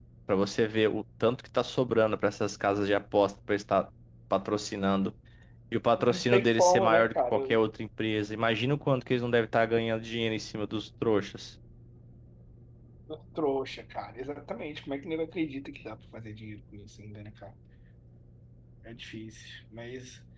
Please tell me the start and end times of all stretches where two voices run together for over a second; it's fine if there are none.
6.1-7.6

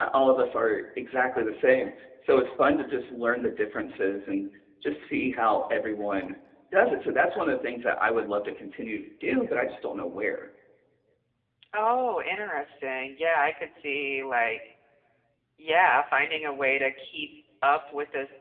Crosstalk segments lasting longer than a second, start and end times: none

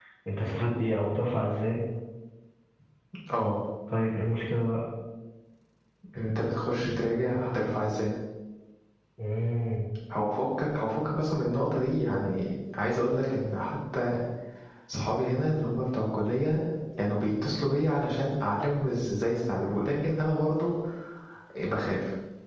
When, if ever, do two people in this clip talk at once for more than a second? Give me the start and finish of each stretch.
none

